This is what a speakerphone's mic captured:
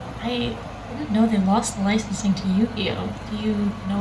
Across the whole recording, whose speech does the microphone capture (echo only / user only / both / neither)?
user only